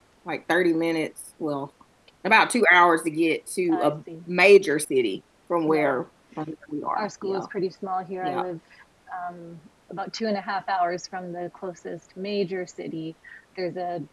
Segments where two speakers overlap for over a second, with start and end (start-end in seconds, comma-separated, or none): none